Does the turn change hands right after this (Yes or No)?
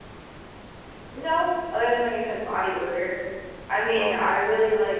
No